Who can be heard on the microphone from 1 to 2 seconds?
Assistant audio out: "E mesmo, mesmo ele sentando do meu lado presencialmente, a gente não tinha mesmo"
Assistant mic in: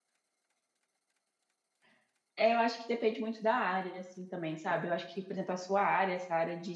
neither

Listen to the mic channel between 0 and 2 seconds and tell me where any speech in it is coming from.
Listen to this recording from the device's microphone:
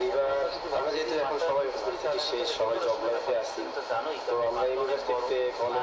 echo only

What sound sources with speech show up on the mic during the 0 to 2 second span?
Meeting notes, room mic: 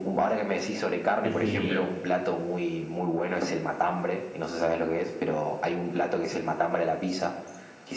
both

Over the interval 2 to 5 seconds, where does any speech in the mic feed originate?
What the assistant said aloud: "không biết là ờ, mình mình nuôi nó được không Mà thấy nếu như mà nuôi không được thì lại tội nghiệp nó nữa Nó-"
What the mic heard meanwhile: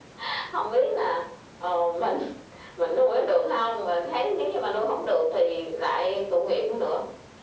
echo only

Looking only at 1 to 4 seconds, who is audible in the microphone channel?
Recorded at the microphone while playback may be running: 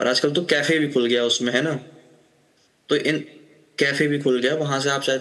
echo only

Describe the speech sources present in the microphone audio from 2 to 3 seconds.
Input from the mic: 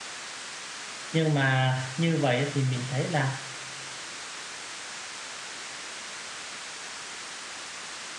user only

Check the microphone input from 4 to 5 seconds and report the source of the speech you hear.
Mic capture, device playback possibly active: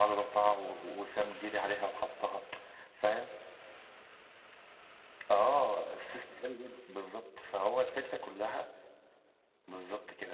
neither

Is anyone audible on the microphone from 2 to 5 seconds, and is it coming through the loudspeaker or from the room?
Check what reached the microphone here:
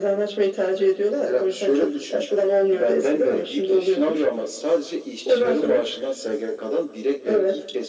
echo only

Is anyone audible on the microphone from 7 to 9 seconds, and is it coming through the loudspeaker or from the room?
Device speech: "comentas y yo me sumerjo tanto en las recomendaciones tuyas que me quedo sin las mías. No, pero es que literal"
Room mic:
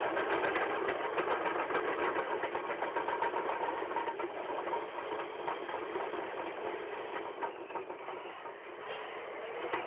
neither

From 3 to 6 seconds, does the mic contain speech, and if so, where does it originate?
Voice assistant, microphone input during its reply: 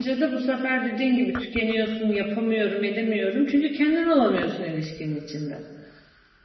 user only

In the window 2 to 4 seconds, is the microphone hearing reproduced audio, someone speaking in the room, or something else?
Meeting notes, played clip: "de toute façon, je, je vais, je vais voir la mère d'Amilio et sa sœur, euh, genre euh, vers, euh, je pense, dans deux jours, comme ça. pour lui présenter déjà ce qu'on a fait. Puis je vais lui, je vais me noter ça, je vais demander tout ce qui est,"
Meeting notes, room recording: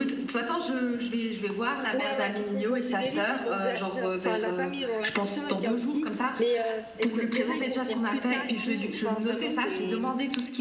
both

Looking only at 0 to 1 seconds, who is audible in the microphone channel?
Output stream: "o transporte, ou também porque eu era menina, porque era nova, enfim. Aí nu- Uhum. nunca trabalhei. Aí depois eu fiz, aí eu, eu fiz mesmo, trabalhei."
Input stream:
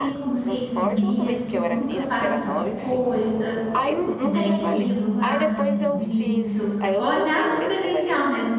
both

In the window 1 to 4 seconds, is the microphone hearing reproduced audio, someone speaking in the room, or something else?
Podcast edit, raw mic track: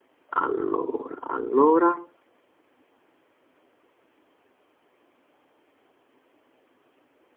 user only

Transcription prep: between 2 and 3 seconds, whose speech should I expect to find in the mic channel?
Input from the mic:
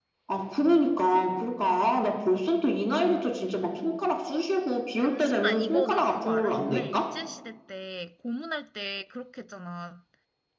echo only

